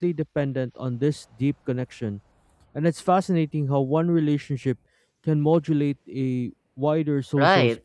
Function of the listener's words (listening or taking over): taking over